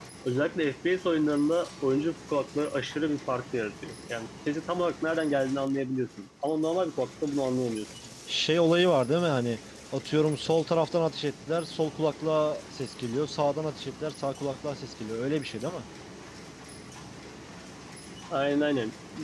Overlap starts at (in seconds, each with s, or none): none